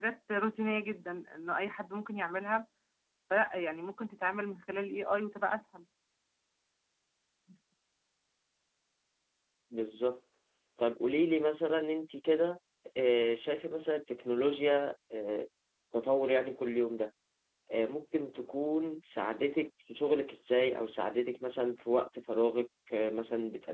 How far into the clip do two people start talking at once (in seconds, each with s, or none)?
none